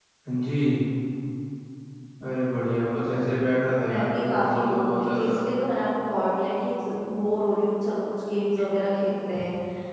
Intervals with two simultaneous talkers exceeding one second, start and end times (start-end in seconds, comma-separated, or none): 3.8-5.3